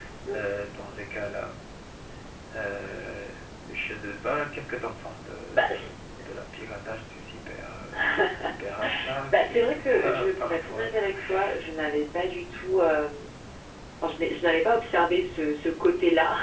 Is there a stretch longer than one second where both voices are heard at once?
Yes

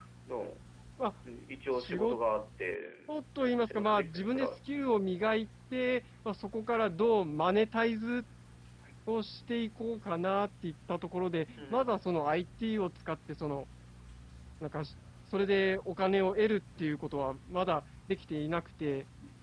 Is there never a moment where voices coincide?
No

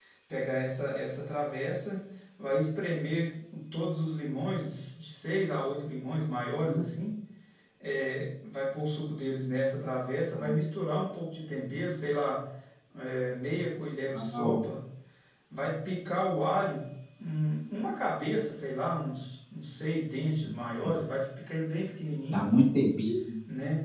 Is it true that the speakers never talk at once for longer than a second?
Yes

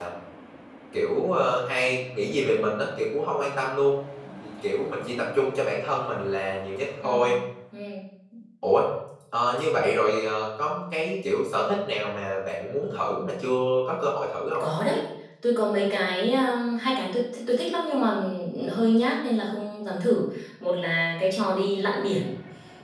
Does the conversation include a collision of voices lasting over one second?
No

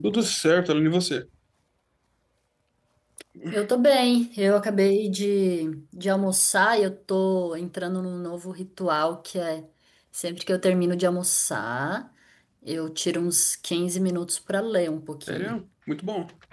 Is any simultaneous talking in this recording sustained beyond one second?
No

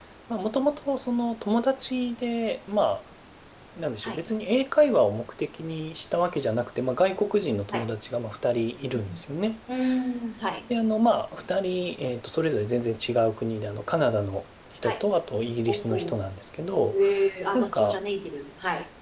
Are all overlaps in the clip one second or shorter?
Yes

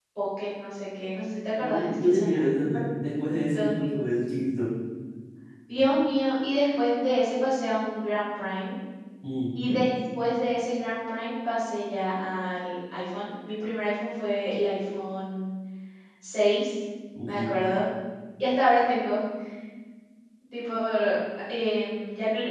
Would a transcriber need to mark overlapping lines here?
Yes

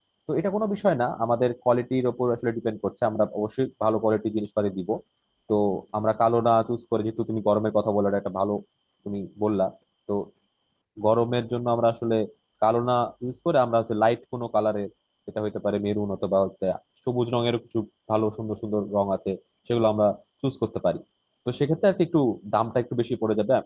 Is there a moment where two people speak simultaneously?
No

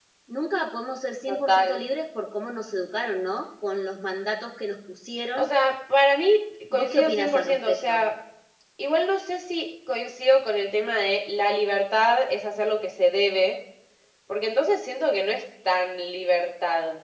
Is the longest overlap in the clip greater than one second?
Yes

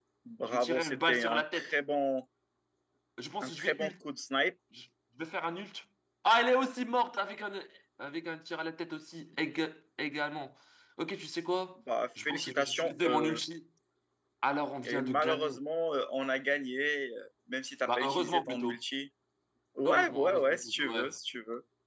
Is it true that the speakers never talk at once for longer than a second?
No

